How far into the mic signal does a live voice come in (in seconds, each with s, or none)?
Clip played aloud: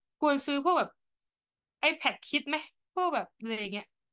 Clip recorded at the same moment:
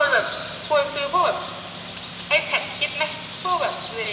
none